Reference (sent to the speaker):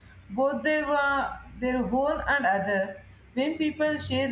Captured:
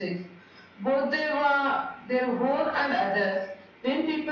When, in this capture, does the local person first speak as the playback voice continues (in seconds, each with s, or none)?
none